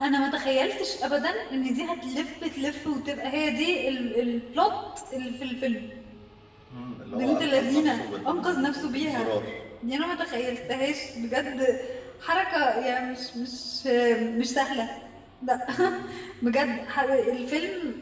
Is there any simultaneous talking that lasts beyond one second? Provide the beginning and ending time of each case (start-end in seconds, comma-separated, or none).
7.1-9.3